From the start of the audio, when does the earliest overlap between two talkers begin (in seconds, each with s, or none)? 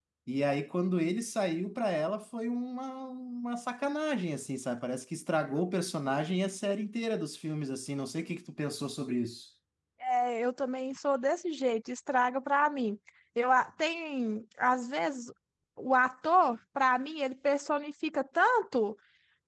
none